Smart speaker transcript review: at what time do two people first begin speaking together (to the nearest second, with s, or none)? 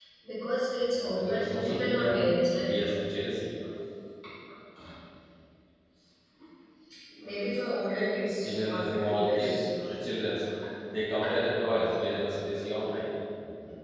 1 s